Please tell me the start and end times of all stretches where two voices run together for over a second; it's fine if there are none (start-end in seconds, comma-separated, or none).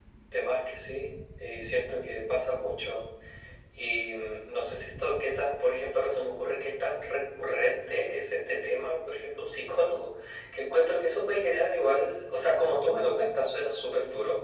none